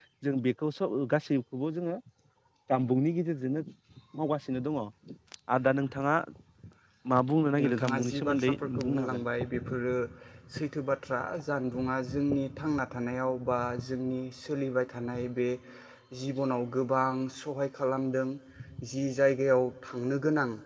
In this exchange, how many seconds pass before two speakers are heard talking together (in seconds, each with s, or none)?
7.7 s